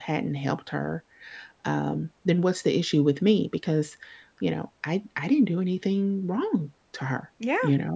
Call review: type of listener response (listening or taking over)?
taking over